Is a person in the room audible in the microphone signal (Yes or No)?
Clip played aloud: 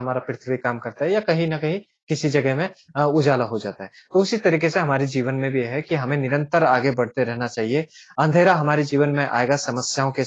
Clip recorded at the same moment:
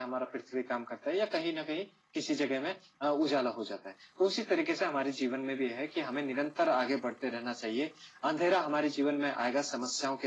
No